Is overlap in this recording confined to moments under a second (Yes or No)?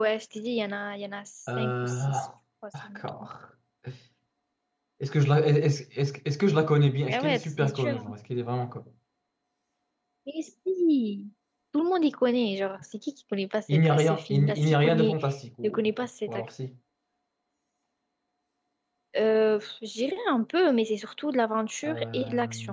No